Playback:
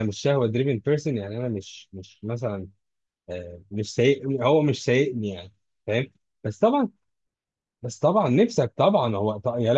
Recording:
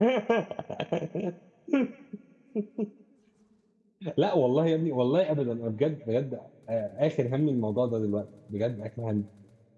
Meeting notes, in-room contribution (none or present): present